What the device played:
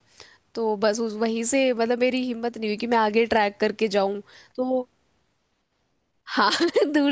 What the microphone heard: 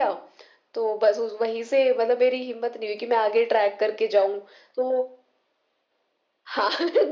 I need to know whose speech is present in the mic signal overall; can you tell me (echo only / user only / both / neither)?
echo only